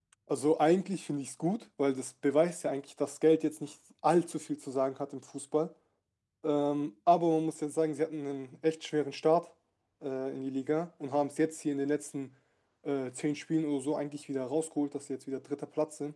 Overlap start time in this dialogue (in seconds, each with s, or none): none